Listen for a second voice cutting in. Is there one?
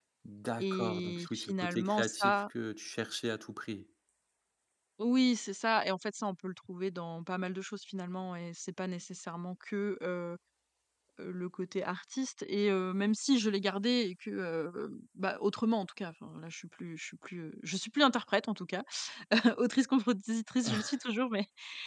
Yes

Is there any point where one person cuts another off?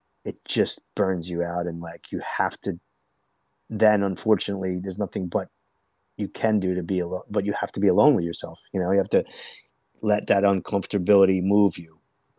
No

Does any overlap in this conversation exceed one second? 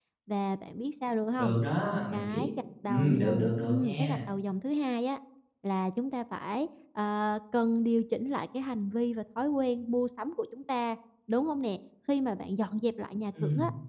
Yes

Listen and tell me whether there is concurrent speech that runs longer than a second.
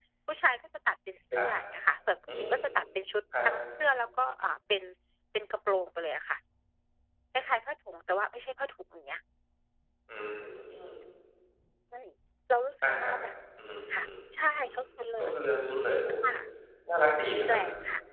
No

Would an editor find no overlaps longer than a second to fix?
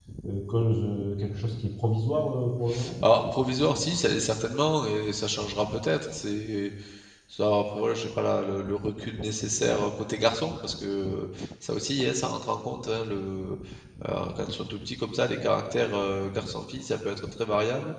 Yes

